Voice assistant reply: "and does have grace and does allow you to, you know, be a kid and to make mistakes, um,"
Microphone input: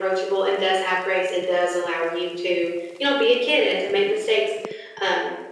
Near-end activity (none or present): none